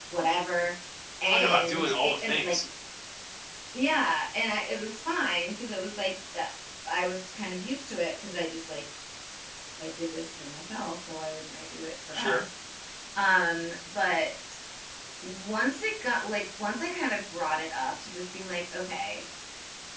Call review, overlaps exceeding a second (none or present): present